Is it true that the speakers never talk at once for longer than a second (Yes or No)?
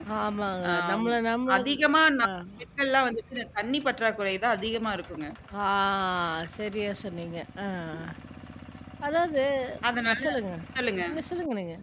Yes